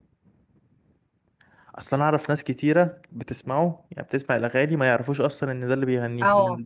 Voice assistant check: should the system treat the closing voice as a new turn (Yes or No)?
Yes